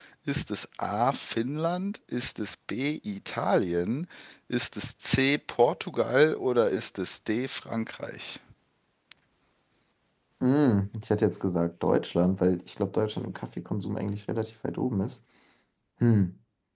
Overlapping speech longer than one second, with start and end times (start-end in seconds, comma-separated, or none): none